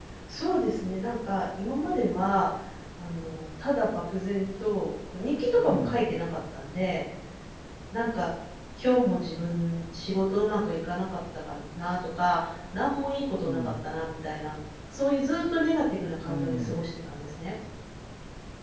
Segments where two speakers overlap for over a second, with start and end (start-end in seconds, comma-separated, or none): none